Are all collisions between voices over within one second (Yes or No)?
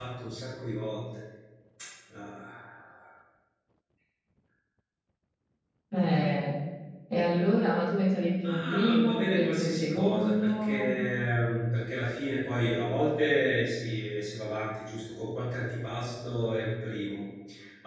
No